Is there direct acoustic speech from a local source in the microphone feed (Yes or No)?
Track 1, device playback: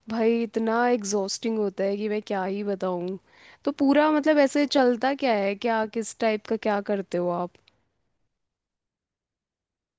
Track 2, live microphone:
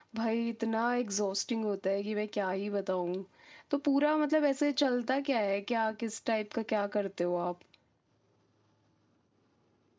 No